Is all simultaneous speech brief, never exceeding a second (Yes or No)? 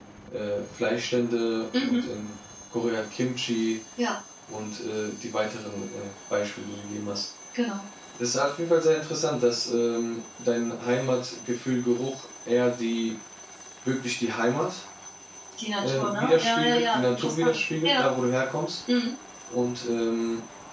No